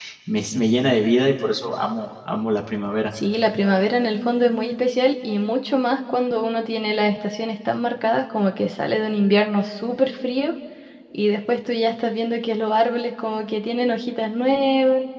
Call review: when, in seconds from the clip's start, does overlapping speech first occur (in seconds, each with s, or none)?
none